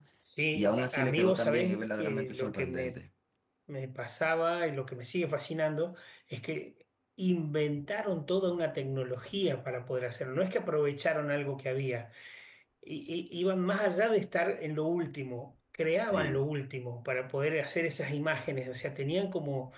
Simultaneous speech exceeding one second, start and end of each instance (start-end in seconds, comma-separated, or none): 0.5-3.0